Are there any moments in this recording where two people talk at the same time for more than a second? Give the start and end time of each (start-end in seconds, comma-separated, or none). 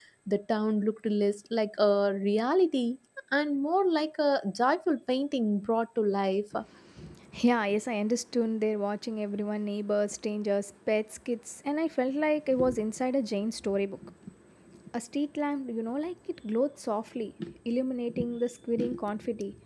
none